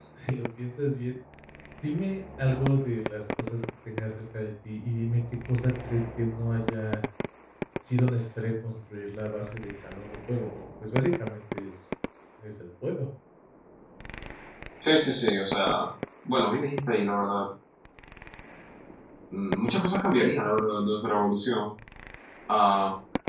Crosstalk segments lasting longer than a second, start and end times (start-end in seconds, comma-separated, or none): none